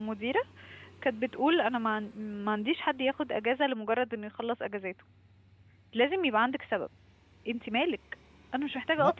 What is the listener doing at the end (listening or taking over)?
taking over